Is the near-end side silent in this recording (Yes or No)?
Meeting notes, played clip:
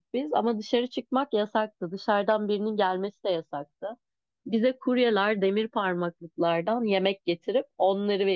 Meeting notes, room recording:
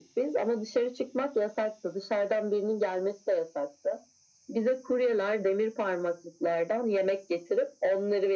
Yes